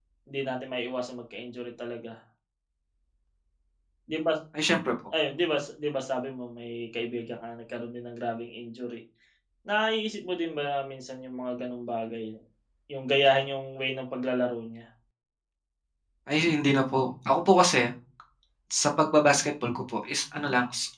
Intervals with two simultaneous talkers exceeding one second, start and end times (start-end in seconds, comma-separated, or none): none